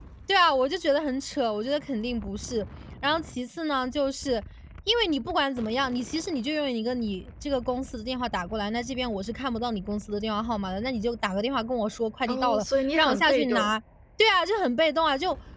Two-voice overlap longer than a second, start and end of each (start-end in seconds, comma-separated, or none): 12.3-13.7